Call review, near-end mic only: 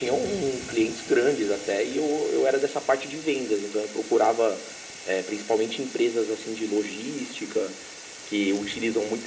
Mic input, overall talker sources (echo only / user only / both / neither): echo only